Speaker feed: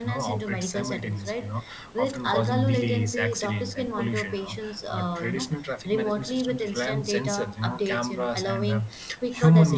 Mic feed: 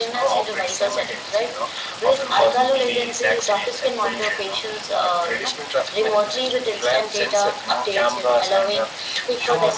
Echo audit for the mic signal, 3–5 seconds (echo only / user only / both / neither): echo only